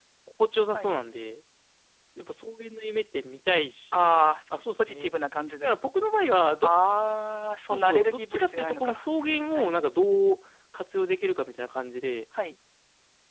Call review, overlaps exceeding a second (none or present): present